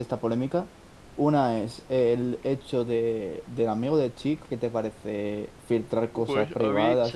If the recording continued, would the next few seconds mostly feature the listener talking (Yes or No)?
Yes